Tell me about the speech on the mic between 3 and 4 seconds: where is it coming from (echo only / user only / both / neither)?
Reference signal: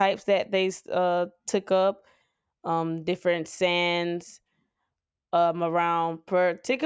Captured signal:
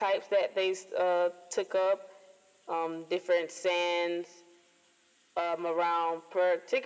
echo only